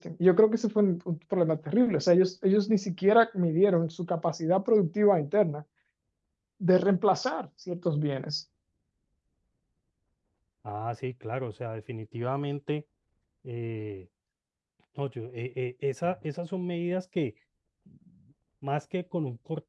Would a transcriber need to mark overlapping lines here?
No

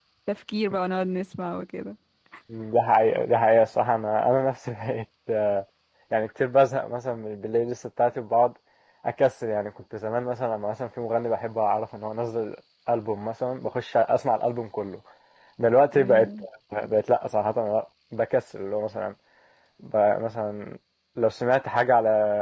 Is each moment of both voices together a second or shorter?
Yes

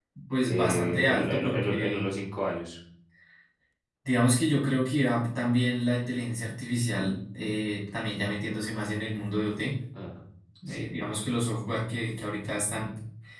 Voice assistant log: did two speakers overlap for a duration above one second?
Yes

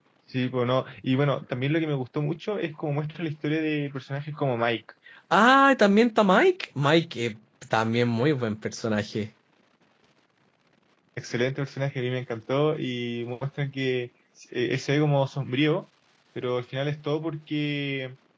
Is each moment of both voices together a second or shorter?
Yes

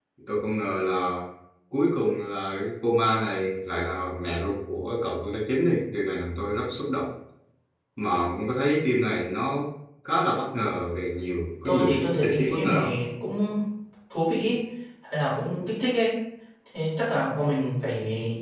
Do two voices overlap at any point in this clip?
Yes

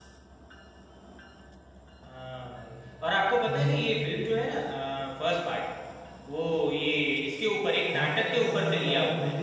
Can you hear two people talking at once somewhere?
Yes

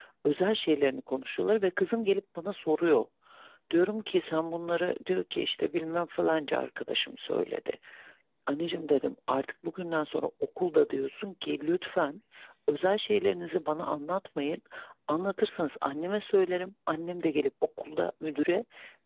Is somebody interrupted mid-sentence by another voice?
No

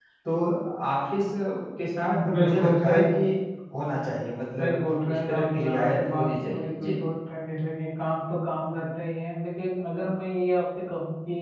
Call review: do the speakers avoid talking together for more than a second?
No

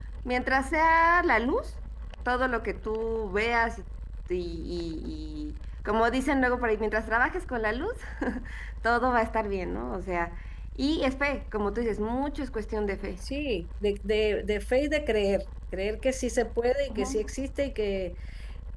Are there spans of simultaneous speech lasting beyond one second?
No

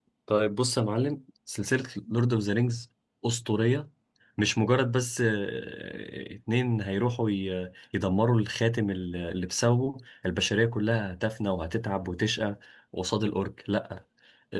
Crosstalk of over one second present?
No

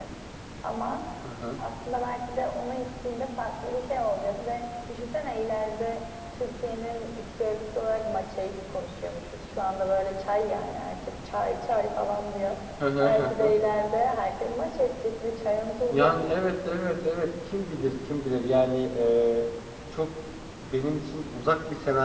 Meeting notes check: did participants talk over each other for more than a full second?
No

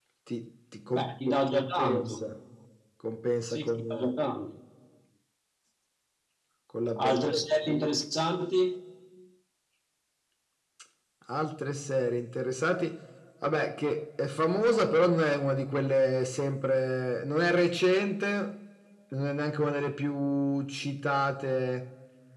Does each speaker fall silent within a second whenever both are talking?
No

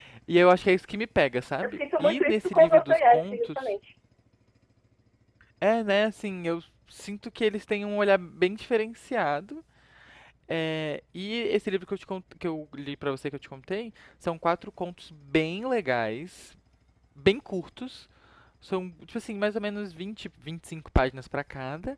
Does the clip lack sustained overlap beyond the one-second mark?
No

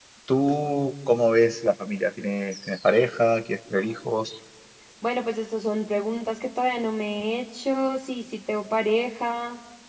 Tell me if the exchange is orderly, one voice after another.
Yes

